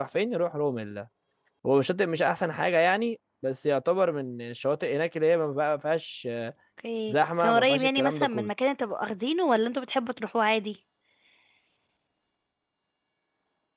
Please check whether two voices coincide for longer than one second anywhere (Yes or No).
Yes